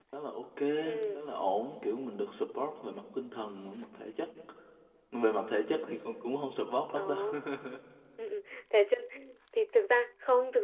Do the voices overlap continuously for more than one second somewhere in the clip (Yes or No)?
No